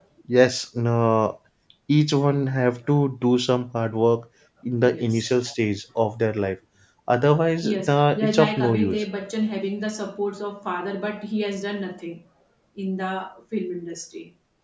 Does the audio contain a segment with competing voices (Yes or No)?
Yes